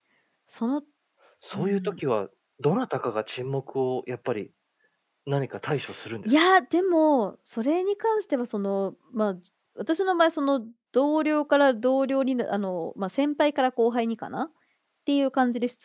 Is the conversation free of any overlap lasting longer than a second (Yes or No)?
Yes